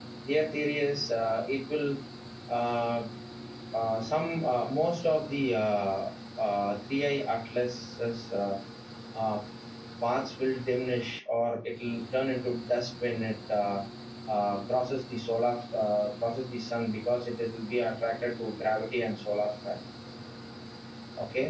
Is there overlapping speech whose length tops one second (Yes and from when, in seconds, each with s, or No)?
No